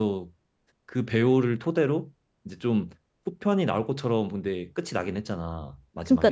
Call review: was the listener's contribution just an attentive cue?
No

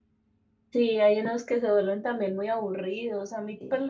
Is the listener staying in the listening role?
Yes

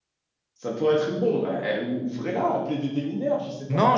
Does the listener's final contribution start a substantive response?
Yes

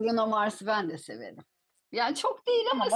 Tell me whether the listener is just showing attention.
No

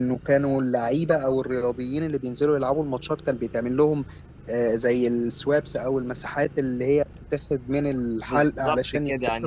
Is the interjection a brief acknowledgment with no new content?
No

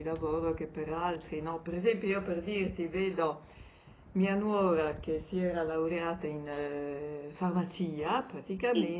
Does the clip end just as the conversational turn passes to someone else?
No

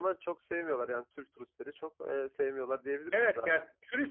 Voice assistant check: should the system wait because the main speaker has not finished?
No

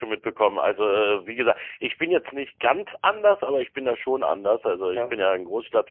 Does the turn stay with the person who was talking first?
Yes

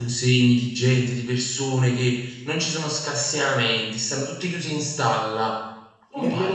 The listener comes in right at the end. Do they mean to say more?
Yes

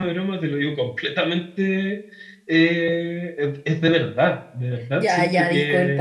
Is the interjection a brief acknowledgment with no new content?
No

